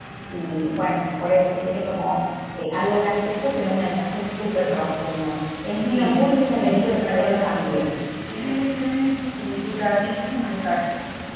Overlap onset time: 5.9 s

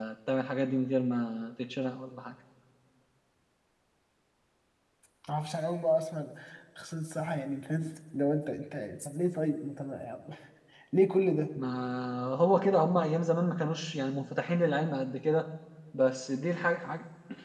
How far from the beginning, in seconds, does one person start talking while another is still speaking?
none

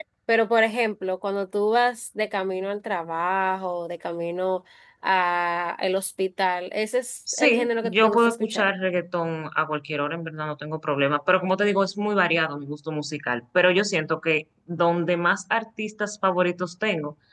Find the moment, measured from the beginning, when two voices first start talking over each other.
7.3 s

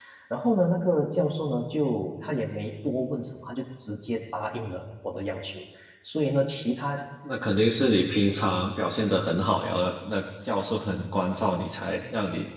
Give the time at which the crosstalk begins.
none

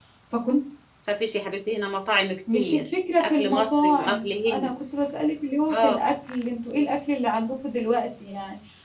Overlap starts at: 2.5 s

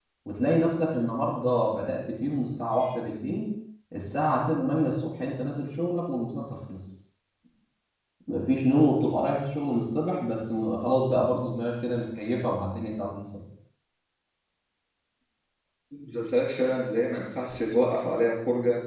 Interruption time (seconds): none

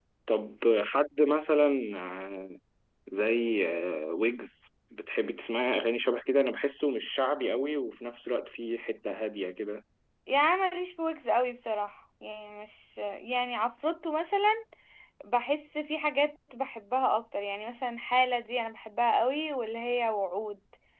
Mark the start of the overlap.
none

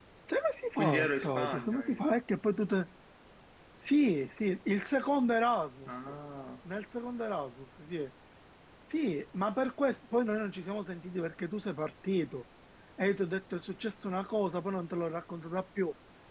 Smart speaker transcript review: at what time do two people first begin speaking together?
0.8 s

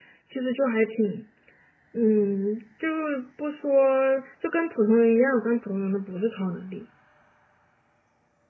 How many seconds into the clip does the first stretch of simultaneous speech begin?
none

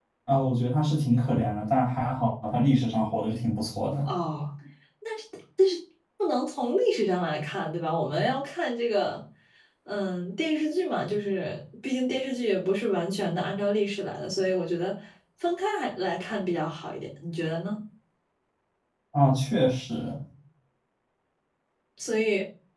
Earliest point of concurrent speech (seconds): none

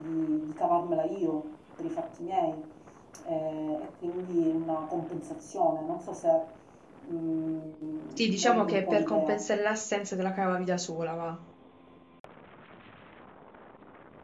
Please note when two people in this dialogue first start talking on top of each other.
8.2 s

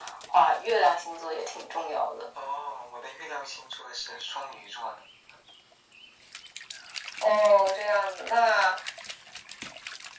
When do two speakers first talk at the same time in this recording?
none

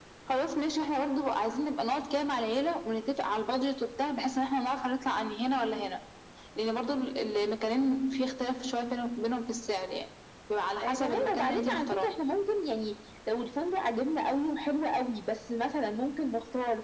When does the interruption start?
10.8 s

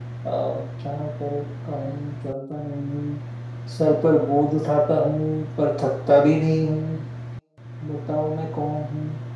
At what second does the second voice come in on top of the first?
none

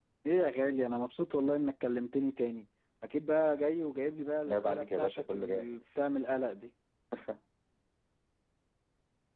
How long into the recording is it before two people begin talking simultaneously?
4.5 s

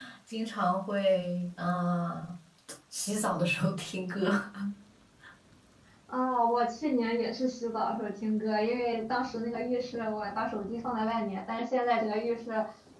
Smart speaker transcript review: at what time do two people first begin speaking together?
none

